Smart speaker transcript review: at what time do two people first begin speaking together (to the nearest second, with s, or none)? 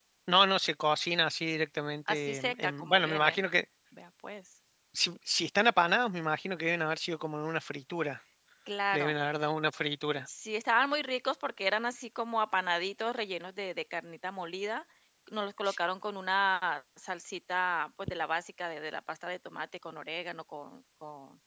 2 s